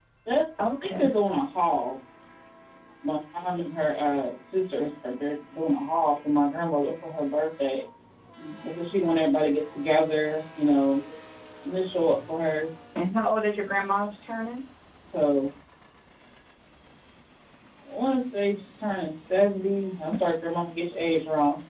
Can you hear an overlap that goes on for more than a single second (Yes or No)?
No